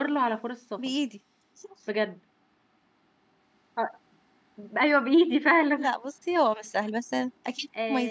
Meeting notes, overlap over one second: none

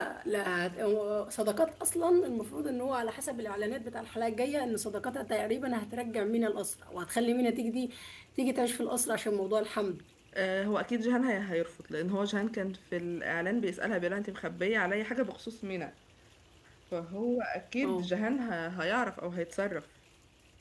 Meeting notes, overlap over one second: none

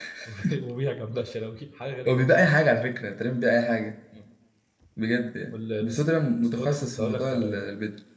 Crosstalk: present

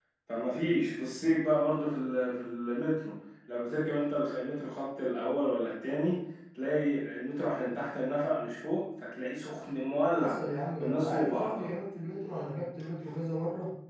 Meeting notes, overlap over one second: present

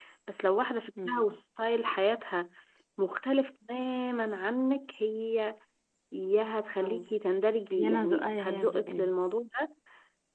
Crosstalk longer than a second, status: present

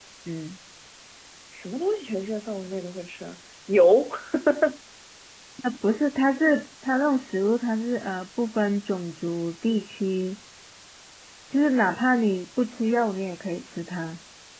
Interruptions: none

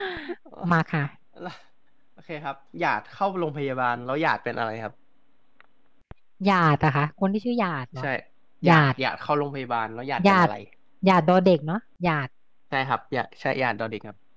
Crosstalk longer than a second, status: none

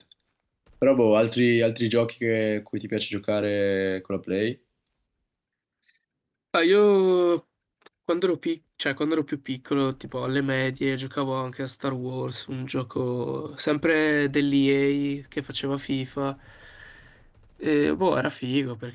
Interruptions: none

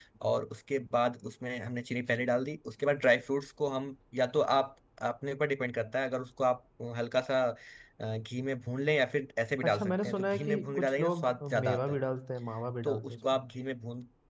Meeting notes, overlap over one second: present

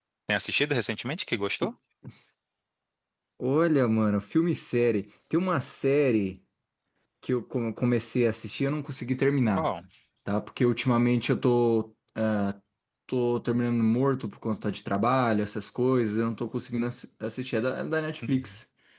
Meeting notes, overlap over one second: none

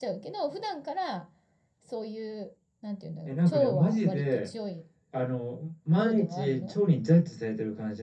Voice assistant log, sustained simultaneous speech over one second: present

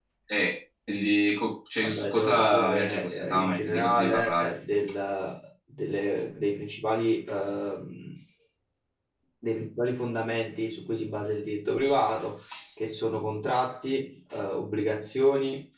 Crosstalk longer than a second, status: present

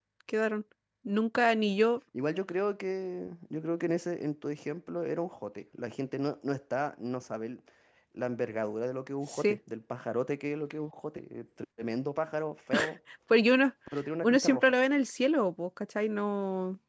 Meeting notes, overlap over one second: none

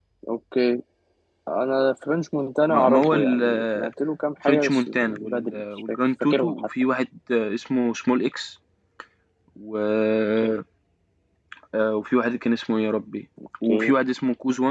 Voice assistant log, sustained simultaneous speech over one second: present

